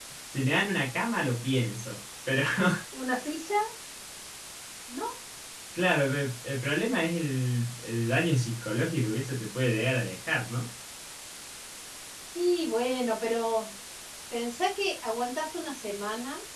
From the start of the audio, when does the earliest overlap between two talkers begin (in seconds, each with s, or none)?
none